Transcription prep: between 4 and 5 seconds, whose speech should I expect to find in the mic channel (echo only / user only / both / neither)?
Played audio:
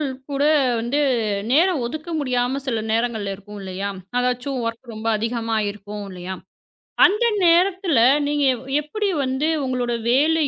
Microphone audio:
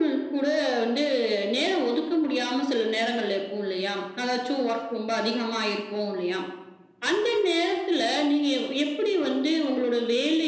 echo only